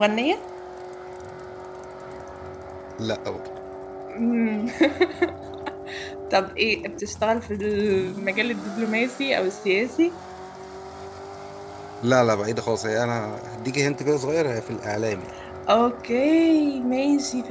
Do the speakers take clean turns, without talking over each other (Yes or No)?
Yes